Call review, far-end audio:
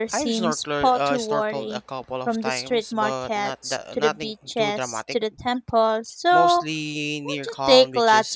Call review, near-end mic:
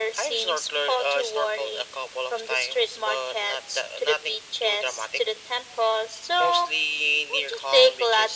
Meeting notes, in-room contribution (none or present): none